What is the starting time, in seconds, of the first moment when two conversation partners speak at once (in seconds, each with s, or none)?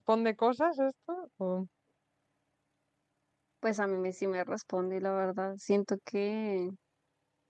none